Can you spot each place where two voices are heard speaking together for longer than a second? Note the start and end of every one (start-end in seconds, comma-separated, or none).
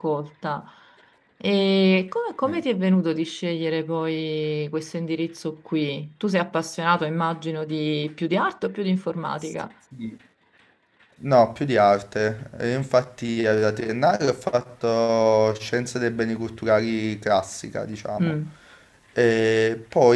none